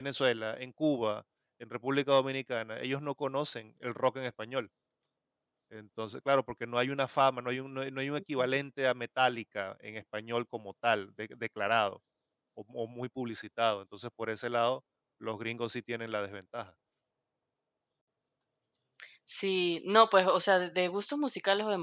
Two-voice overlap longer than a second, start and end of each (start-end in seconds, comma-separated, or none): none